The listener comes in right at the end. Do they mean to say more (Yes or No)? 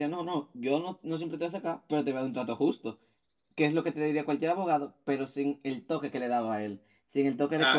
No